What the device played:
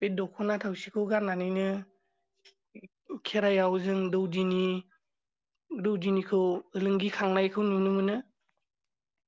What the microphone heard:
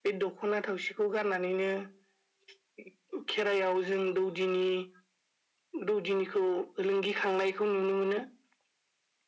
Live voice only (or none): none